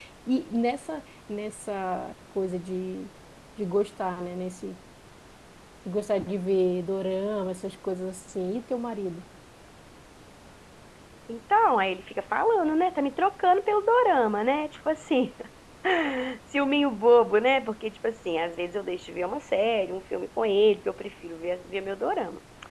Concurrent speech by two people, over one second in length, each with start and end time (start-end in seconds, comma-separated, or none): none